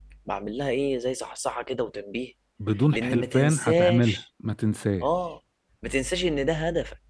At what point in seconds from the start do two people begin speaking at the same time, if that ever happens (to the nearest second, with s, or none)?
3 s